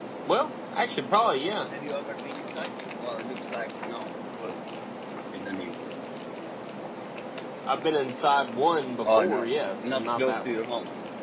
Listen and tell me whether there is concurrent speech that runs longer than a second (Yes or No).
Yes